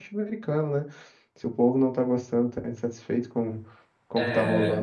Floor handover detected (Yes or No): No